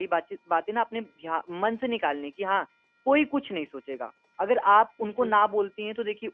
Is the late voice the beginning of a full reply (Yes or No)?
No